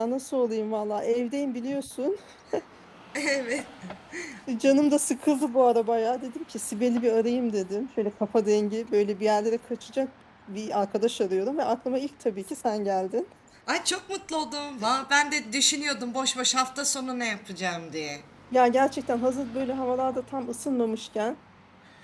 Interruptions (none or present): none